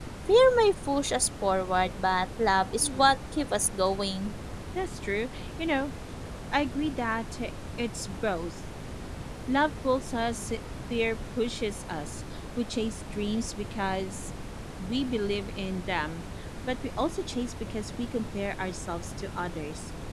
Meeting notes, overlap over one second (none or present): none